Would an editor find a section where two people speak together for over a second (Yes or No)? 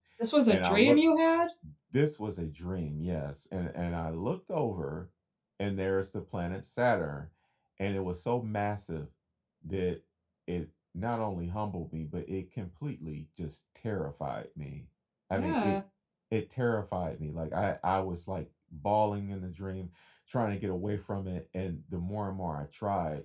No